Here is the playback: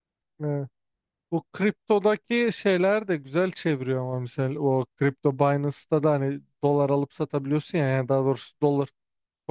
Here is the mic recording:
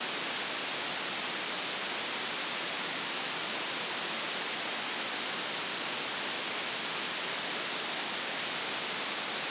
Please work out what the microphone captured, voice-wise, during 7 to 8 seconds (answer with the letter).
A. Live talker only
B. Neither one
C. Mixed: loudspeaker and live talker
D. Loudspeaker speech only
B